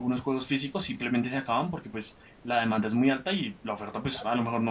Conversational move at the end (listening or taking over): listening